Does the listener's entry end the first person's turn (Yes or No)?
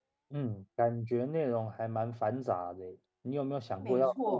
No